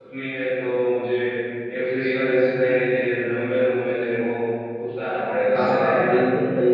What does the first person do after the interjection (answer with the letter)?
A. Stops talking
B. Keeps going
A